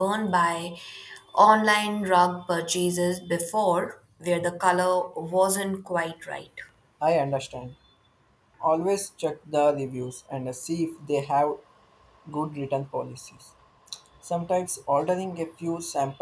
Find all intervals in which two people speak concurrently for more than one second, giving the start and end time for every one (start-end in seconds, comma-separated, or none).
none